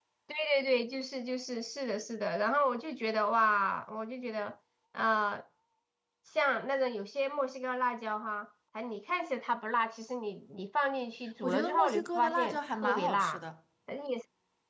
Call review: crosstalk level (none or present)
present